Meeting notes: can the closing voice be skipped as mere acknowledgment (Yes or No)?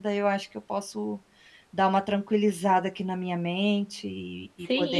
No